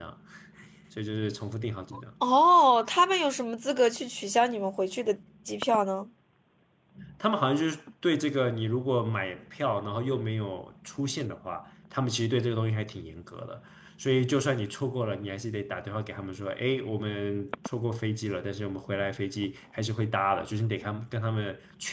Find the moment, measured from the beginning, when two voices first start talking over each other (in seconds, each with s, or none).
none